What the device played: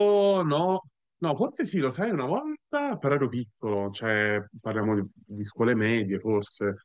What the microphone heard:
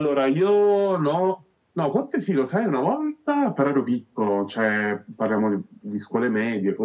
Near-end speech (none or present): none